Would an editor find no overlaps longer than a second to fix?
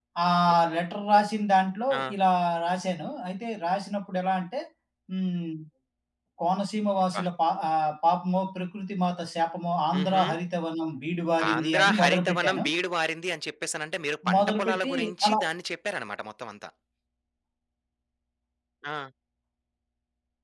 No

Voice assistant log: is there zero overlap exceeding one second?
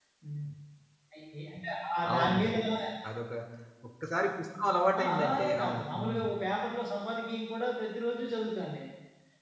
No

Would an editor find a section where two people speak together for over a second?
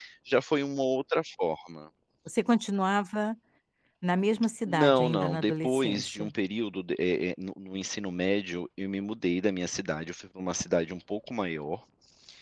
Yes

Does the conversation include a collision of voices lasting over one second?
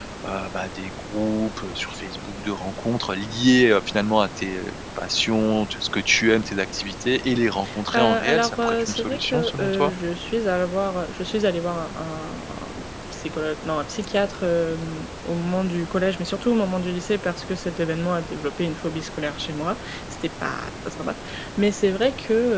Yes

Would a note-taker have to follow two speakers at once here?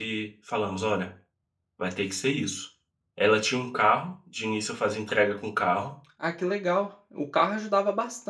No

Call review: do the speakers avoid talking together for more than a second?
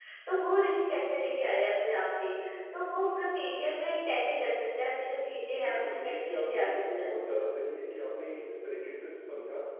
No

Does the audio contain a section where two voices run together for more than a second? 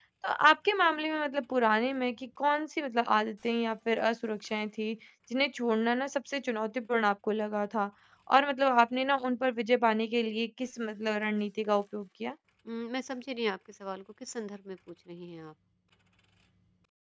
No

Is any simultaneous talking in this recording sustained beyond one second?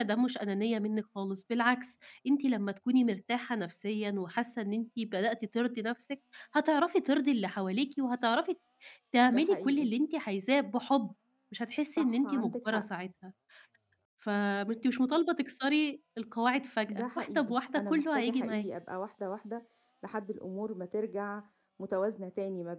Yes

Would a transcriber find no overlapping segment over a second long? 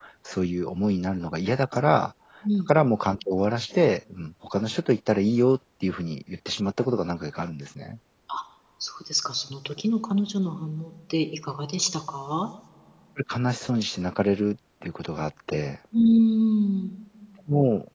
Yes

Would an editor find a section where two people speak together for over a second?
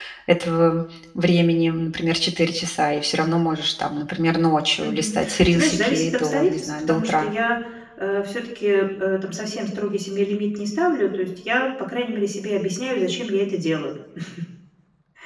Yes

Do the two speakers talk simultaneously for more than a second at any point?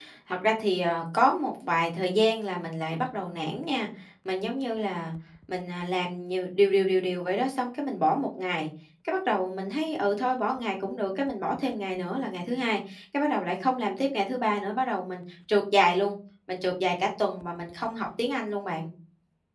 No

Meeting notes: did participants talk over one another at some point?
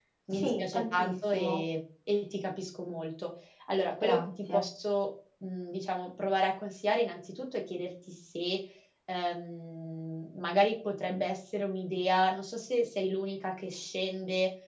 Yes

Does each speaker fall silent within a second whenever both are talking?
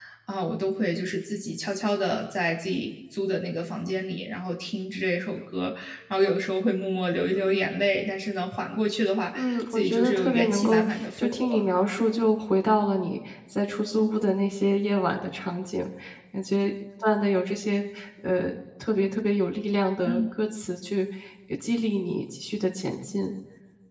No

